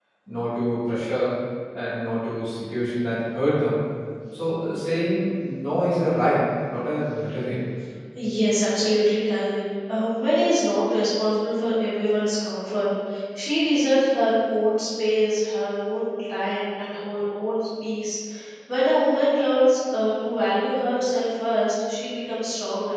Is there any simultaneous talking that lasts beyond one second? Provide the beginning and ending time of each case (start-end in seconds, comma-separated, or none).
none